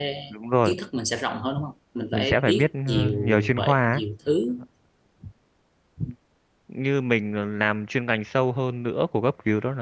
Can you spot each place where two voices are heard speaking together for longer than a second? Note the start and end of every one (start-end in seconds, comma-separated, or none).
2.1-4.0